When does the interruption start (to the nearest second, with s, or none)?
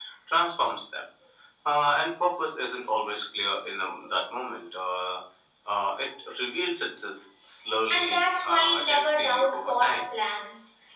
8 s